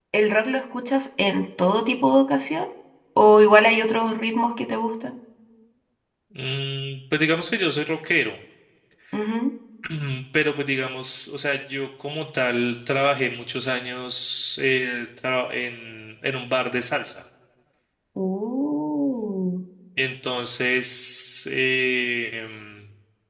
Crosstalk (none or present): none